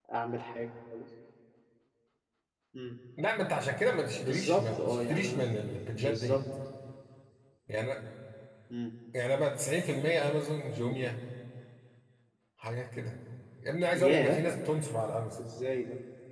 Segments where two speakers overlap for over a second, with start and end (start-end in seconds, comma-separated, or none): 4.3-5.5